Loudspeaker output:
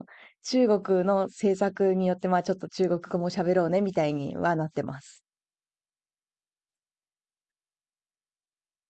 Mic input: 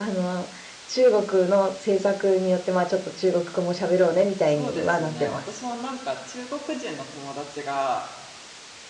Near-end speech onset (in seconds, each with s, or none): 4.4 s